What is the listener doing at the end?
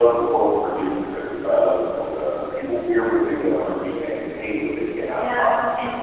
taking over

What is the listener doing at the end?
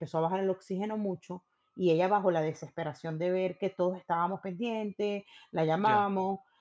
listening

